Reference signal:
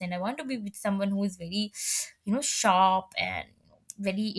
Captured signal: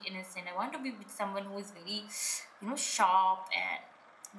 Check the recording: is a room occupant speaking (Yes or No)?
No